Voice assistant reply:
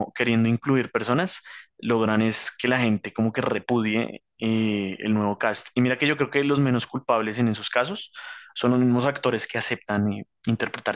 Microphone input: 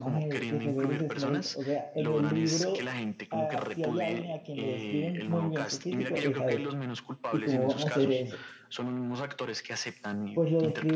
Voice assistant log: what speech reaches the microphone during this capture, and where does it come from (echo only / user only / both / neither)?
both